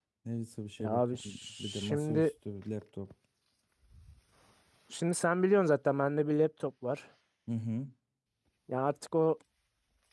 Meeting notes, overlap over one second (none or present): present